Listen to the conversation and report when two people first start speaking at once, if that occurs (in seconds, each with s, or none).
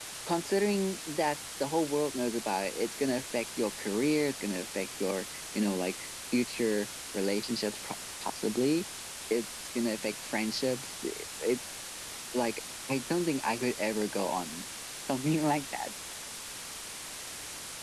none